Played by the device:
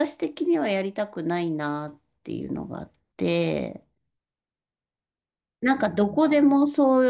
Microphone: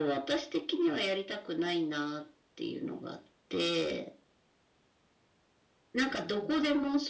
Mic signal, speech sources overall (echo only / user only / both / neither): echo only